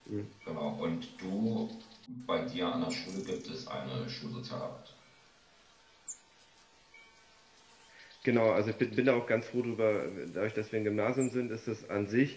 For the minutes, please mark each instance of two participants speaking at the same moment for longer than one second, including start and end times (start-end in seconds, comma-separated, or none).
none